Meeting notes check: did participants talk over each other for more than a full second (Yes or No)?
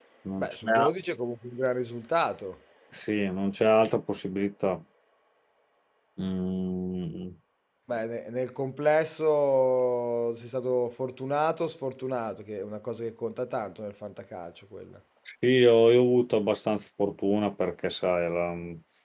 No